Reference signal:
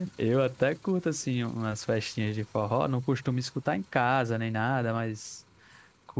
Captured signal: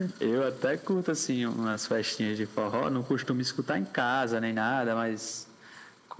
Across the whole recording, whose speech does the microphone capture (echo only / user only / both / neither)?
echo only